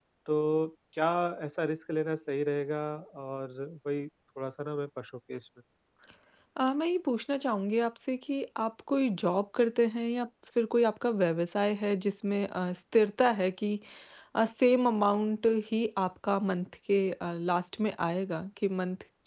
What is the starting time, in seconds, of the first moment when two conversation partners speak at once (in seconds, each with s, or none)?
none